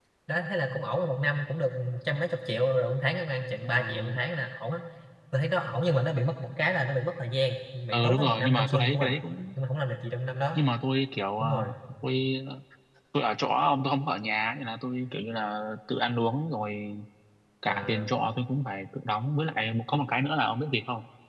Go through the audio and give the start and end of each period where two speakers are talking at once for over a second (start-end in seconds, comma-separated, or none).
7.9-9.2